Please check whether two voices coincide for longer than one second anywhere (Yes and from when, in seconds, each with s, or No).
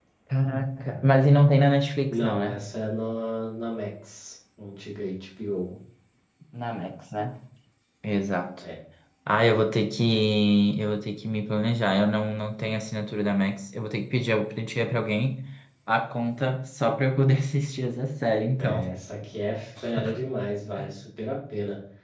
No